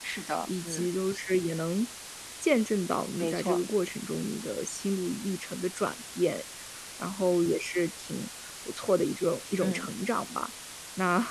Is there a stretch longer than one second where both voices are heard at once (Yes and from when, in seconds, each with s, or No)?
No